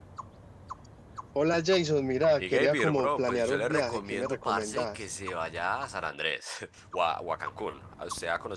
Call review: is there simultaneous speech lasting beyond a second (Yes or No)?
Yes